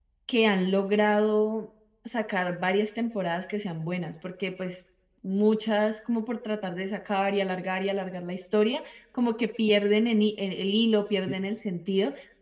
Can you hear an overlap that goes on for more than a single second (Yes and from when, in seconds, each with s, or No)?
No